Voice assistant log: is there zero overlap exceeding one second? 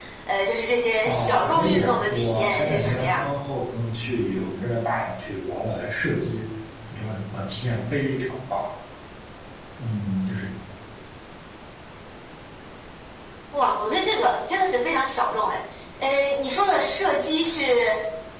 No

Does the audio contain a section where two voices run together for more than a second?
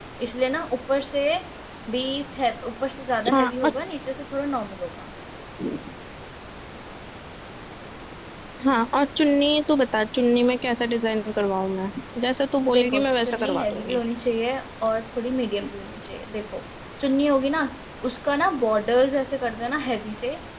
Yes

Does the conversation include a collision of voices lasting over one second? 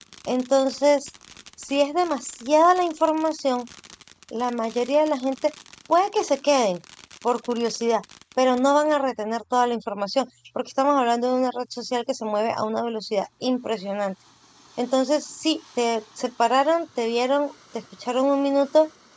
No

